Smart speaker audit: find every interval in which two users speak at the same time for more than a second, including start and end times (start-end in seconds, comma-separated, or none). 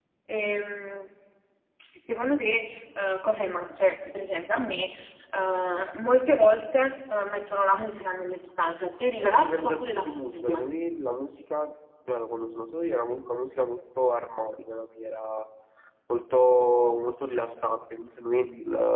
9.2-10.7